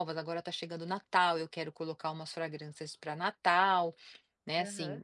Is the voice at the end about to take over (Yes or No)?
No